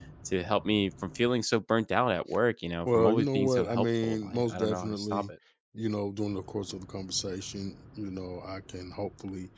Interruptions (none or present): present